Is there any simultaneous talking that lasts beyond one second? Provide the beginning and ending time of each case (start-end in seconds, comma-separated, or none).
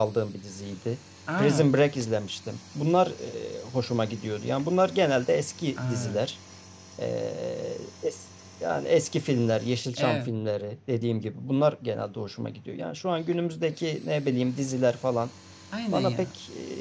none